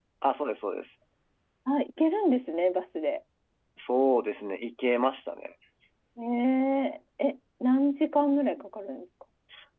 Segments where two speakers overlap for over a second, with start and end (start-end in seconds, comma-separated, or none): none